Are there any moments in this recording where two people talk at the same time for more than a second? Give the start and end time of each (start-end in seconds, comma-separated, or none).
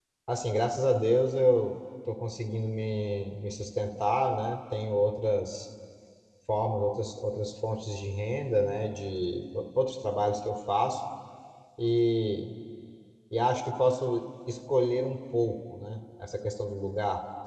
none